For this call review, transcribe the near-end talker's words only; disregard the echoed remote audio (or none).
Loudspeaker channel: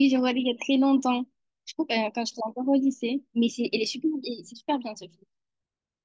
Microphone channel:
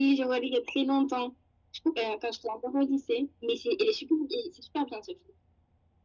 none